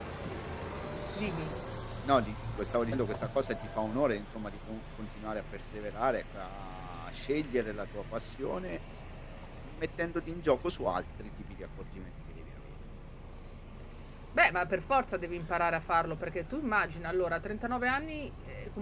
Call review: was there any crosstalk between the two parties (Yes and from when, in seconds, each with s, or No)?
No